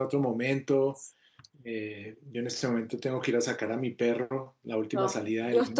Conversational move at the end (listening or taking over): taking over